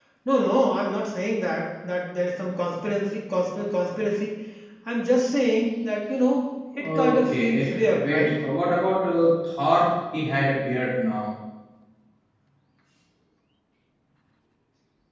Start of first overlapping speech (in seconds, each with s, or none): 6.7 s